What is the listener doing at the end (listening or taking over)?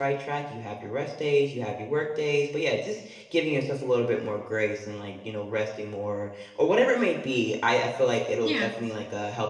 listening